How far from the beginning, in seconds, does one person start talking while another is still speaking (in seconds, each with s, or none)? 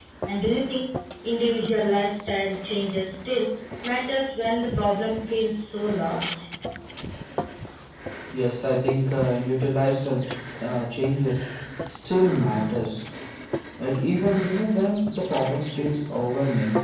none